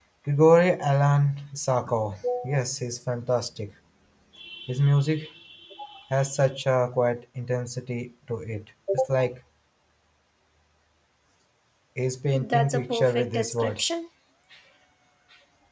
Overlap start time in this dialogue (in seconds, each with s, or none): 12.4 s